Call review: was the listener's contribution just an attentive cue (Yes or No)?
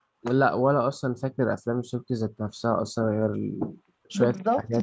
No